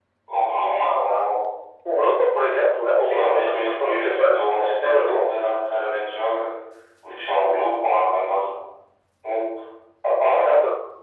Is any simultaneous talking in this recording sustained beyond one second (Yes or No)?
Yes